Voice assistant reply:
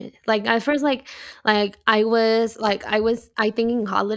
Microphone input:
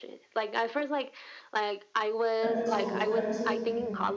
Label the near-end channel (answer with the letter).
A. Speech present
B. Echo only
A